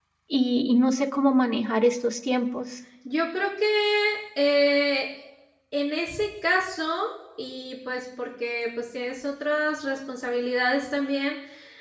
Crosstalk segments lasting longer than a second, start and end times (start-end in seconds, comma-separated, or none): none